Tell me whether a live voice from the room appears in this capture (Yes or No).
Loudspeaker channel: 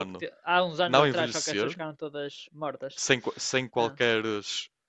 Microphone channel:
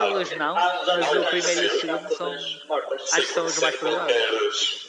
Yes